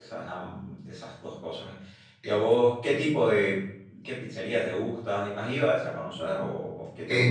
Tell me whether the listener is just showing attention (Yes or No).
No